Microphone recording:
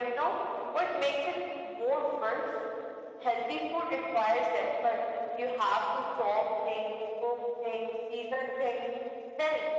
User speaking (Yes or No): No